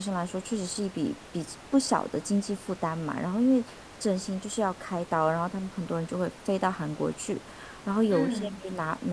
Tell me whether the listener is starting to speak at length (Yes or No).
No